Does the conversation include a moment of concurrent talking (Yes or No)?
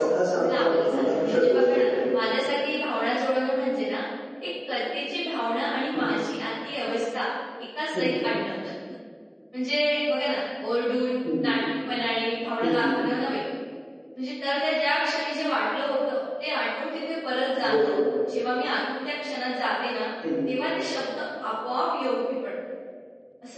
Yes